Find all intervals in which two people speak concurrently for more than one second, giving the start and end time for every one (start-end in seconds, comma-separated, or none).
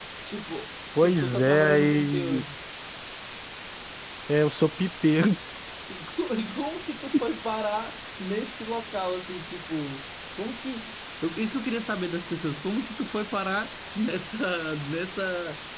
1.0-2.4